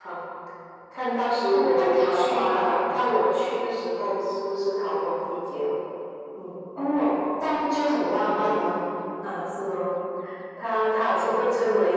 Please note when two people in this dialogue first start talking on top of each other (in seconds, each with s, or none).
1.5 s